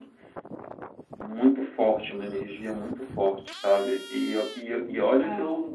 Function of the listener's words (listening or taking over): listening